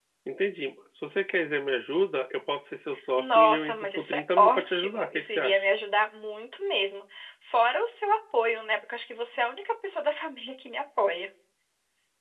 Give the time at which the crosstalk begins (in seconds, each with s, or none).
3.2 s